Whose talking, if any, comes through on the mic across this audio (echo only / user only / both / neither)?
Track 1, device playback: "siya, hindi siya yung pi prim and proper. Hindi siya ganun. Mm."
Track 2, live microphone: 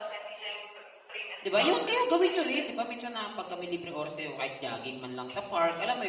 both